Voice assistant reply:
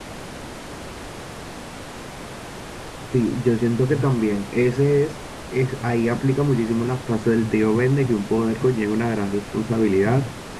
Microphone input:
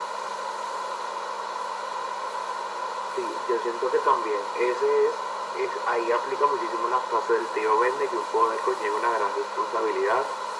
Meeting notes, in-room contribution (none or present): none